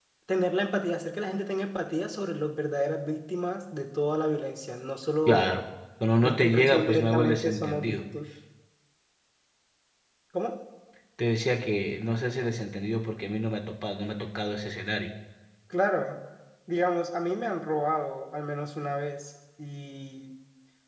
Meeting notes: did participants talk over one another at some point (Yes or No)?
Yes